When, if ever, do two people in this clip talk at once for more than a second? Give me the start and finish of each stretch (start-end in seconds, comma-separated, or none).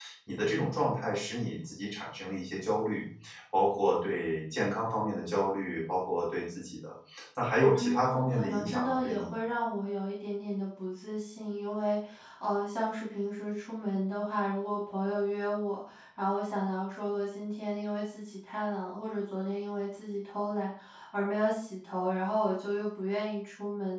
7.8-9.3